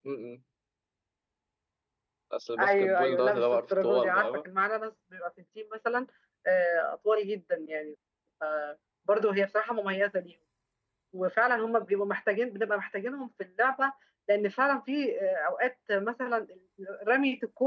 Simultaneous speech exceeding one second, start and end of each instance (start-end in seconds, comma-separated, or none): 2.6-4.4